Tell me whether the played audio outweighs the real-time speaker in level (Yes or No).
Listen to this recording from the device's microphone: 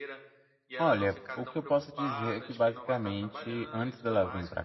No